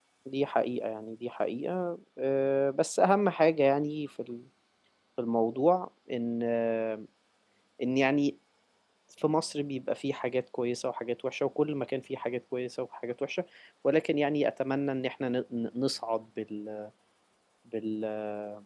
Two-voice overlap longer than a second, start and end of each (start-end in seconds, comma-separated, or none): none